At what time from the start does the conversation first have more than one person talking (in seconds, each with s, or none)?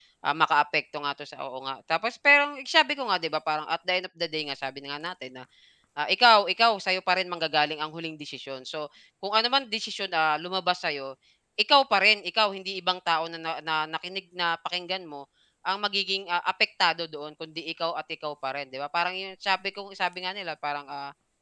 none